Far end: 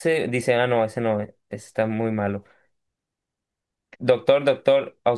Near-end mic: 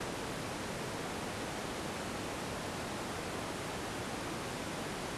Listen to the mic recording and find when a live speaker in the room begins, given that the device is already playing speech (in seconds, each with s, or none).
none